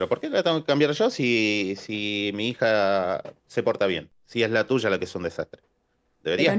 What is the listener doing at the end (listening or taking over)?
taking over